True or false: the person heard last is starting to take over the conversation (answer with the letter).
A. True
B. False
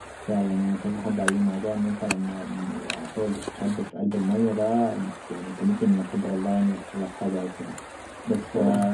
B